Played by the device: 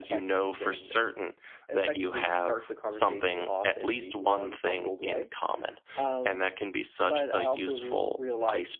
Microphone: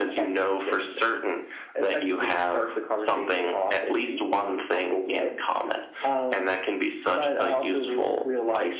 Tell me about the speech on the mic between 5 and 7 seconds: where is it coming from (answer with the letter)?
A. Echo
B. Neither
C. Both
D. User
A